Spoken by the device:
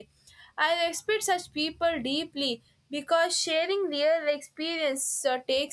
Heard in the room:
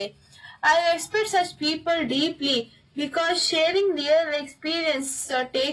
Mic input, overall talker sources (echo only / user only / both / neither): echo only